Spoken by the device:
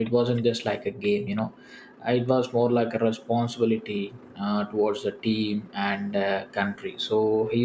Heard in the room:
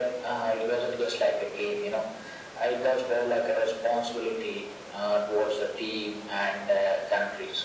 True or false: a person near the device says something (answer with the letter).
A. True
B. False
B